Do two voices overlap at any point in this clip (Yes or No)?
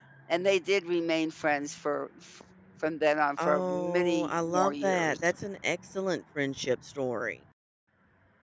Yes